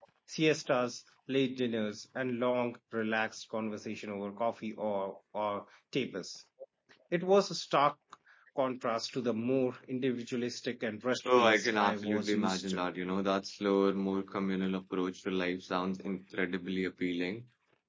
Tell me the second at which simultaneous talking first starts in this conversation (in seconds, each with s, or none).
11.2 s